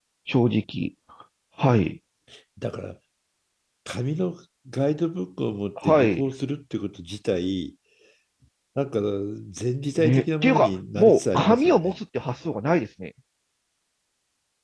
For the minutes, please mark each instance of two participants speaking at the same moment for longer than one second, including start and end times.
10.0-11.9

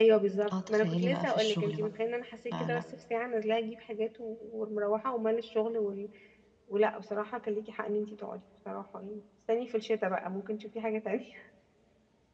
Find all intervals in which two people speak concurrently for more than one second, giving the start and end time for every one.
0.5-1.9

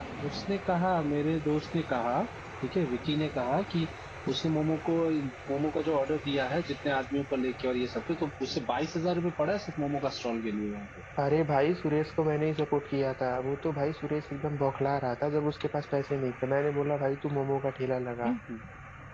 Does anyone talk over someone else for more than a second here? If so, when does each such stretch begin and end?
none

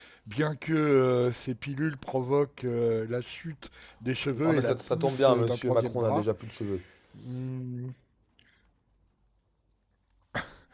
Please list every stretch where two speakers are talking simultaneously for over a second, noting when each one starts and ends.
4.4-6.2

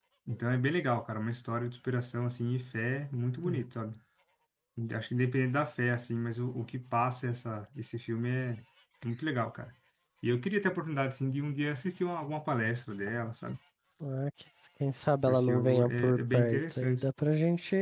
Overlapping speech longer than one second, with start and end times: 15.3-17.1

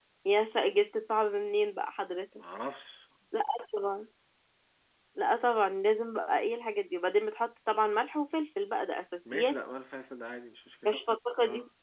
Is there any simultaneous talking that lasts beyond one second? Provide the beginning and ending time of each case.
none

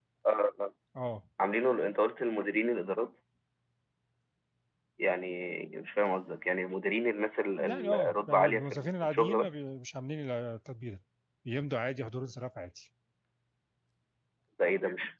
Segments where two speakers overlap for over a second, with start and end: 7.6-9.6

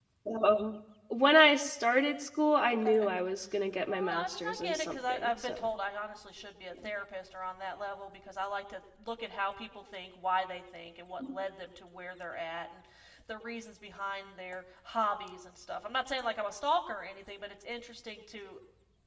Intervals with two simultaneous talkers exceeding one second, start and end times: 3.9-5.7

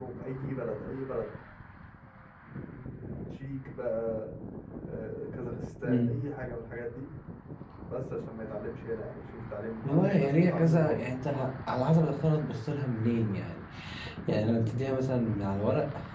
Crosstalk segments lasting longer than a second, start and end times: 9.8-11.1

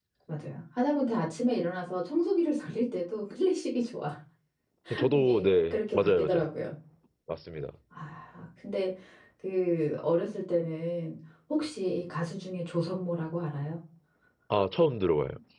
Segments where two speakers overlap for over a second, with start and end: 5.1-6.4

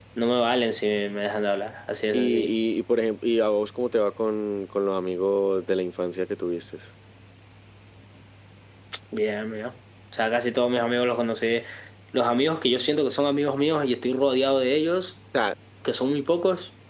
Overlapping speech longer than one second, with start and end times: none

